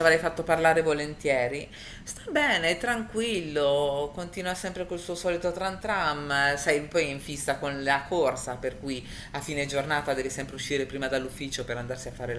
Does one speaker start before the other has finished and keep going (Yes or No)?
No